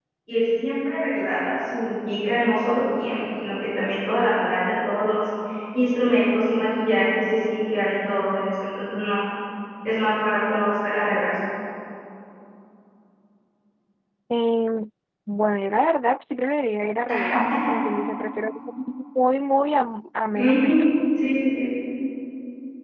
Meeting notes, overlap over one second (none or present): none